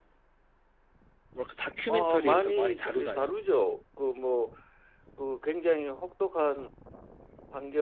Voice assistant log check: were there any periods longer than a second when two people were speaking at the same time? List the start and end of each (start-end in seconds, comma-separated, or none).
1.9-3.3